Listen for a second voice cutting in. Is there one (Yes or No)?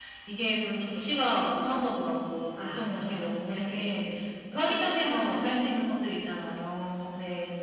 Yes